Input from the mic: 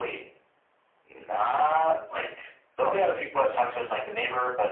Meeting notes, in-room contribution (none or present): none